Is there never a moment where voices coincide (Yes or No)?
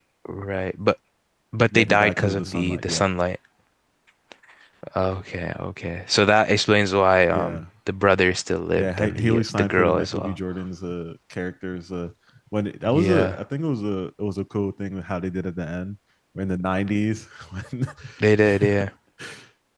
No